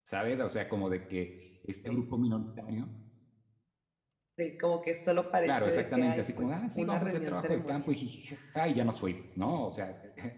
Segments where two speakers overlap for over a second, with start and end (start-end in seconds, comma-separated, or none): 5.5-8.0